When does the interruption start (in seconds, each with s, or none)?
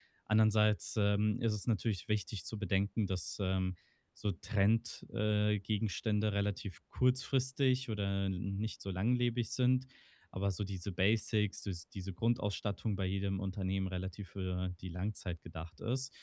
none